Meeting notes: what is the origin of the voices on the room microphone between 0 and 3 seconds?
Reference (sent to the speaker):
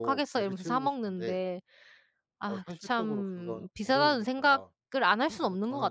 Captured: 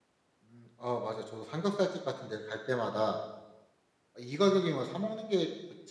user only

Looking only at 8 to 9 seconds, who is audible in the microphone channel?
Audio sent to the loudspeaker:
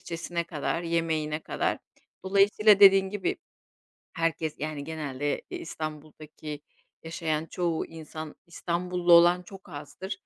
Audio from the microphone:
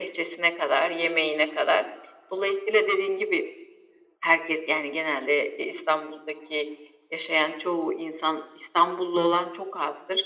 echo only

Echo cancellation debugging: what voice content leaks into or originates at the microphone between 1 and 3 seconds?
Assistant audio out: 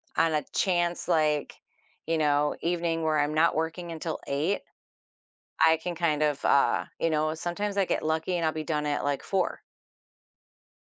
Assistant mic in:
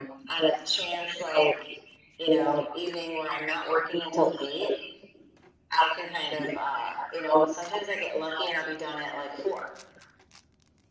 echo only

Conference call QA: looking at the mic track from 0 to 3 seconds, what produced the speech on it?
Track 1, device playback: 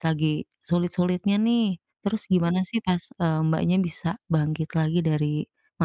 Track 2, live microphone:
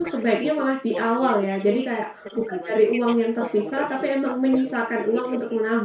both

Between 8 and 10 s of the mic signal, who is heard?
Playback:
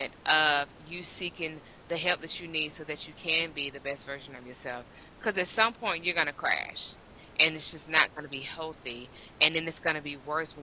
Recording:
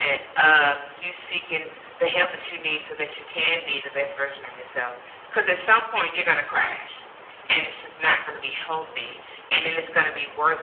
echo only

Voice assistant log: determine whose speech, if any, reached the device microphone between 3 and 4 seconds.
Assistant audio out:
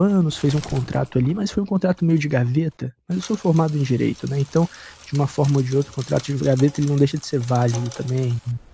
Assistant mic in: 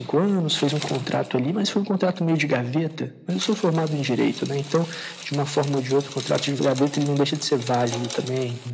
echo only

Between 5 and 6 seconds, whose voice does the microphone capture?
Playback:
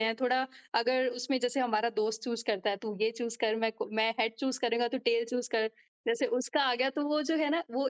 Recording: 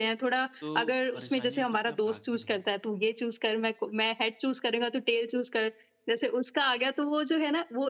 echo only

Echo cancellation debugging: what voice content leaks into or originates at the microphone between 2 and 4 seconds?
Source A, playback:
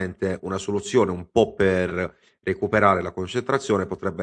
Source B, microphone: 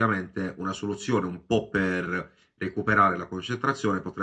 echo only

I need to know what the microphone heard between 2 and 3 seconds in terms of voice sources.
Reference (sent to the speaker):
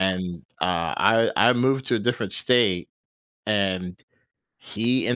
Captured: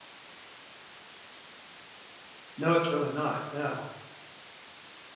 user only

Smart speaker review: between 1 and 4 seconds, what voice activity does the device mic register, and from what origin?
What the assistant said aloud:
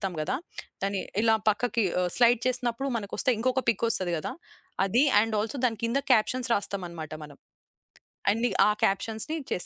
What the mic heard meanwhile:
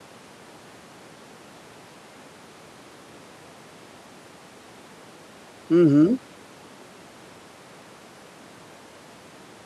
neither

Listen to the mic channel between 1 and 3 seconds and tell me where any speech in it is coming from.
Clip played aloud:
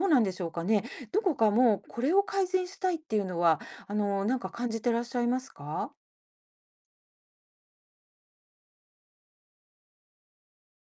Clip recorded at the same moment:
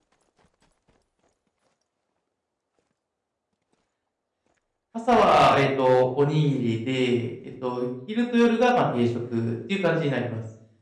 neither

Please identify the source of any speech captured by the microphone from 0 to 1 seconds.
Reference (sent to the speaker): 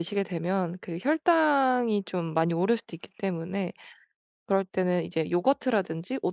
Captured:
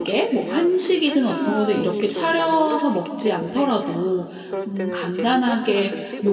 both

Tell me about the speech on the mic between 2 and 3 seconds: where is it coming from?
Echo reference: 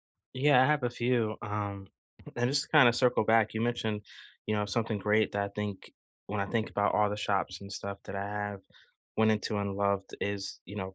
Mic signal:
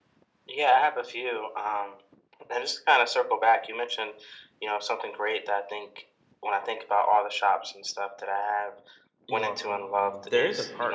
echo only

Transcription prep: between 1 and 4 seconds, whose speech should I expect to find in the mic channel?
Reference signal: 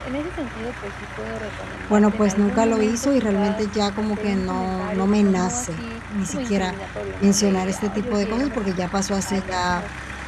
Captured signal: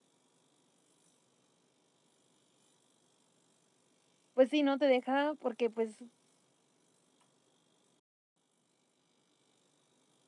neither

